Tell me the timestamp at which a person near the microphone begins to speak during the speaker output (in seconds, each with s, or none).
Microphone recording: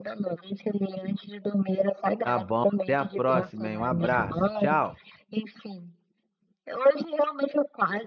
2.2 s